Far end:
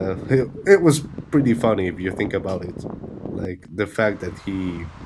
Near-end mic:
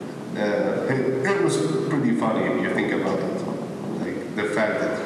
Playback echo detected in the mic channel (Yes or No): Yes